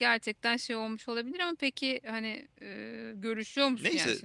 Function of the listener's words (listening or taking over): taking over